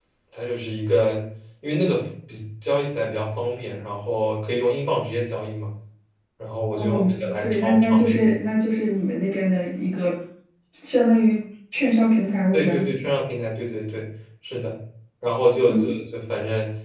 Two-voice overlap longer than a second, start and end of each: 6.8-8.2

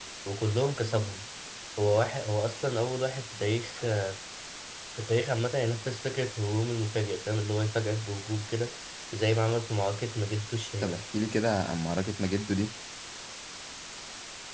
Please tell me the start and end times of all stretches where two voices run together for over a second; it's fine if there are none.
none

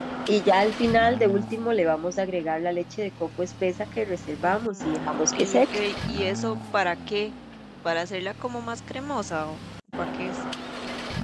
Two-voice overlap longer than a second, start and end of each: 4.4-5.8

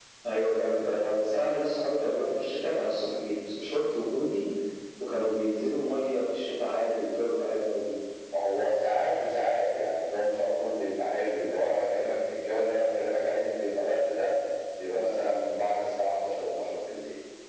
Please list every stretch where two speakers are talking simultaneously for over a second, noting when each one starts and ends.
none

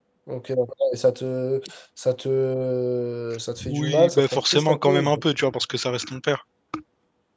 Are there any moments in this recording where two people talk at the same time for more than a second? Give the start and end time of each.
3.7-5.2

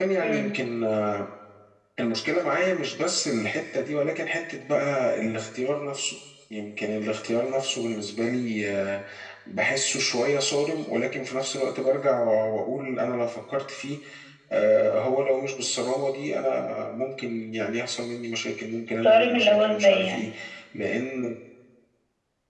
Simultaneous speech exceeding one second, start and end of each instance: 19.0-20.3

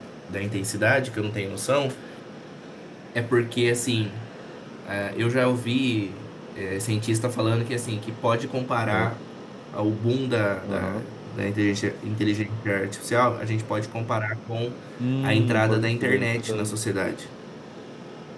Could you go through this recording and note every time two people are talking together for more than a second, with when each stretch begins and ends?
15.2-16.8

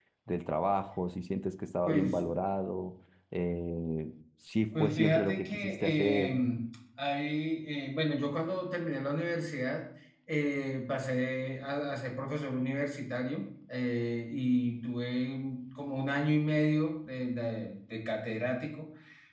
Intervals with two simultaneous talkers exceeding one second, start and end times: 4.8-6.3

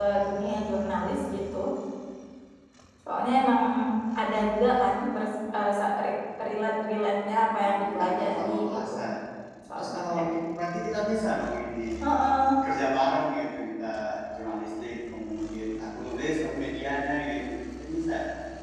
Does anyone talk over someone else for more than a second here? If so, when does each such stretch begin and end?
7.6-8.9

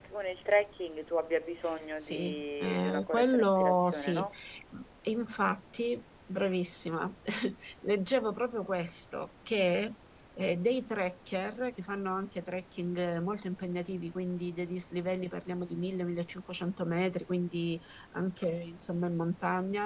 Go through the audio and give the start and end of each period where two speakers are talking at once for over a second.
2.0-4.3

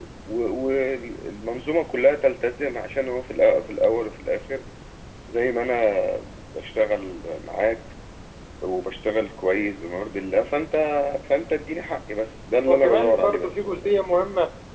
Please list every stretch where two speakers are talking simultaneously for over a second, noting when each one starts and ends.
12.7-13.9

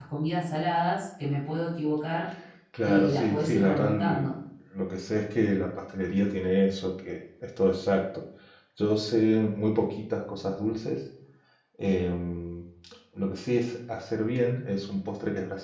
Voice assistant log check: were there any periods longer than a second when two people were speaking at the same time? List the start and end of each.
2.8-4.3

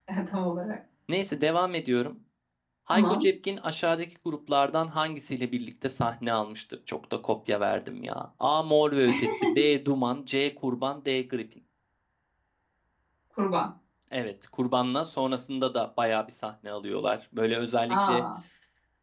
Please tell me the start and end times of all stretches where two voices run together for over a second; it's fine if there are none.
none

